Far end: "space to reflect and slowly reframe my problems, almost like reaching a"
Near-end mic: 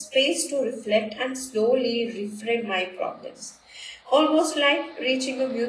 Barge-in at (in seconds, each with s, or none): none